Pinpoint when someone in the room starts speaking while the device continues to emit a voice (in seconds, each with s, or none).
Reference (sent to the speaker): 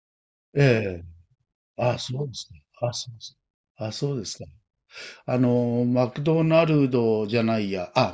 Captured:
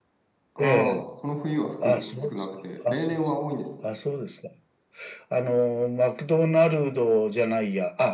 0.5 s